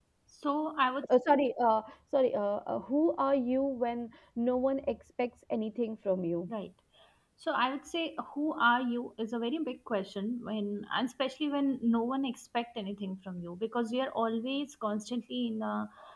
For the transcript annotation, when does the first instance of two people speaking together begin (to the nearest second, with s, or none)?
none